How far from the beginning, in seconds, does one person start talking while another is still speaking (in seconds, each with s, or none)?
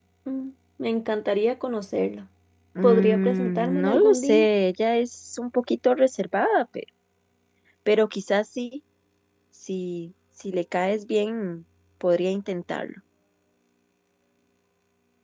2.8 s